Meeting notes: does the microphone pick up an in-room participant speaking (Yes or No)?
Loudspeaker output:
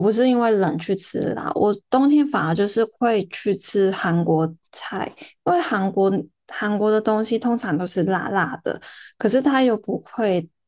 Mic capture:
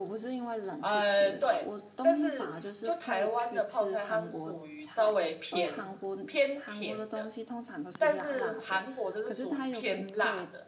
Yes